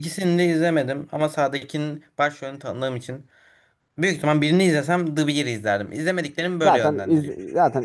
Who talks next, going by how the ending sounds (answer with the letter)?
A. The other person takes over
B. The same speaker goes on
A